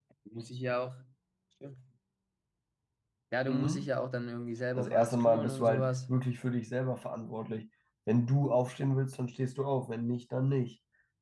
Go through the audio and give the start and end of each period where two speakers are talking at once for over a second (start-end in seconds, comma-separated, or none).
4.8-6.1